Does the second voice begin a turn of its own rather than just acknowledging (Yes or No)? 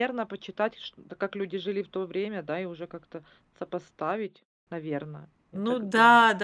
Yes